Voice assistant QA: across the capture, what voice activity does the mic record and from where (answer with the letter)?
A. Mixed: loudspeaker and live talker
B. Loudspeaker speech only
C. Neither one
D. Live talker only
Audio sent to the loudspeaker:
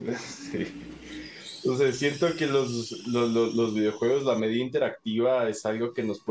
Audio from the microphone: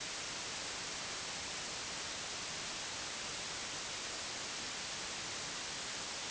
C